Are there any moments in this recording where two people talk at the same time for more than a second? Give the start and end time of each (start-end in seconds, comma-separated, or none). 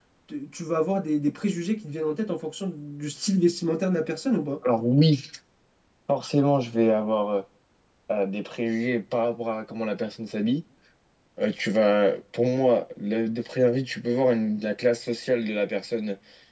none